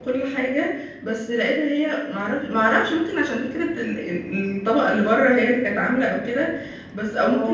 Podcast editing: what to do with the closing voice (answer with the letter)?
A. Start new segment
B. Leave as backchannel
B